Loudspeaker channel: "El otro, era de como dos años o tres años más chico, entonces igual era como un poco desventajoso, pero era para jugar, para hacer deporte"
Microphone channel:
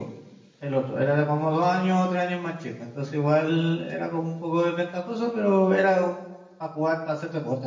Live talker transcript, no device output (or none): none